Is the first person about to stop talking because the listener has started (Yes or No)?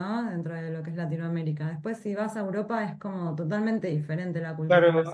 Yes